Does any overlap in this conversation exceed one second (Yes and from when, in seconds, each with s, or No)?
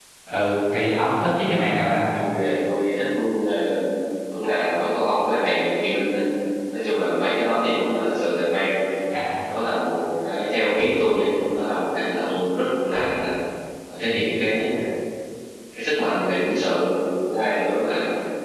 No